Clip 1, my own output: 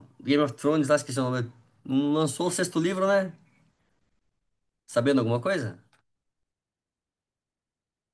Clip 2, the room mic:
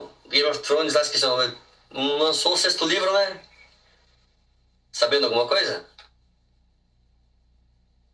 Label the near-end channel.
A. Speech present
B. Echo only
B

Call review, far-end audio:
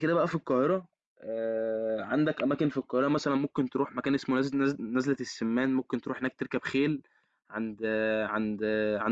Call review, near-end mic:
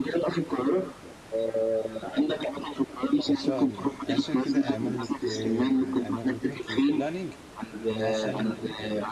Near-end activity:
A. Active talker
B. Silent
A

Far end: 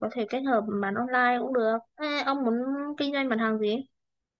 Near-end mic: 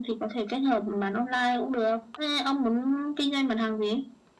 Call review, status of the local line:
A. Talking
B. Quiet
B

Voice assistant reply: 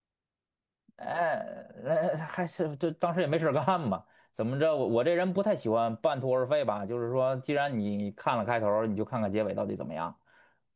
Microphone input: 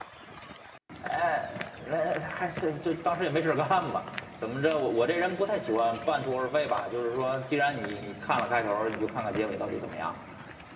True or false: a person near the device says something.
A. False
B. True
A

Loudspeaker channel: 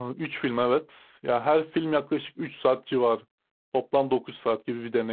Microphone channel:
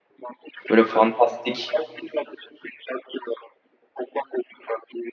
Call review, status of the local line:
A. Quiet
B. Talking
B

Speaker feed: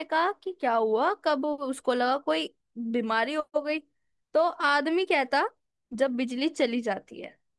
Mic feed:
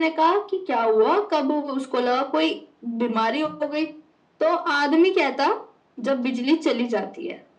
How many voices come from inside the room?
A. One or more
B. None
B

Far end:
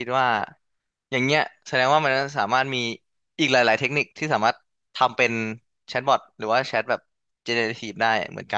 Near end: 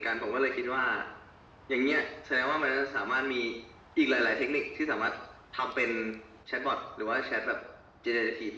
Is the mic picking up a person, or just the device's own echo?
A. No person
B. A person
A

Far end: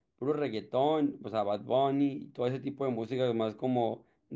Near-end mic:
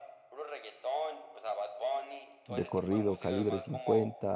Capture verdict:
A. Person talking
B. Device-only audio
A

